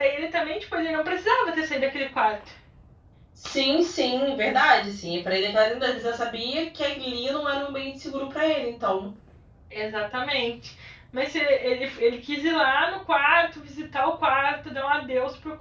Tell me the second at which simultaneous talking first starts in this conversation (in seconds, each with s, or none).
none